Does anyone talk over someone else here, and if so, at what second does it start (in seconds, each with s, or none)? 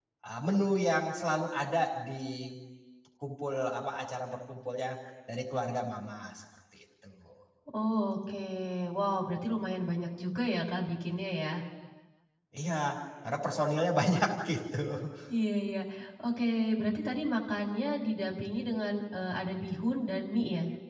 none